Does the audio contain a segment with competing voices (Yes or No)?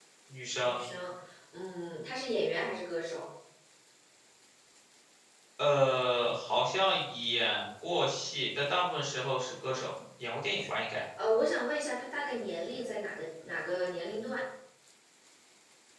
No